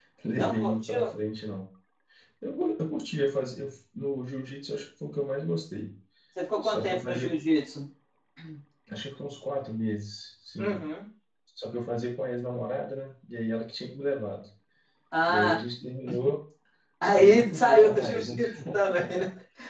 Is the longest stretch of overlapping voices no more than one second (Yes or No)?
No